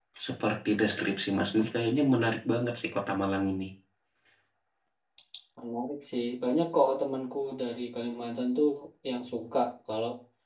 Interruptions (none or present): none